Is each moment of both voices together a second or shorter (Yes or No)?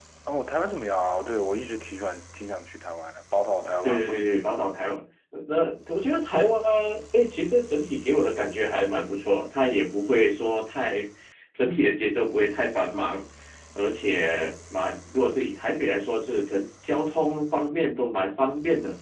Yes